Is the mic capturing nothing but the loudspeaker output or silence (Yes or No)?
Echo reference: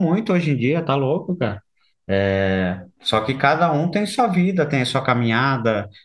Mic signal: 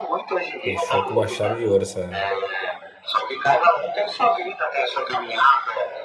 No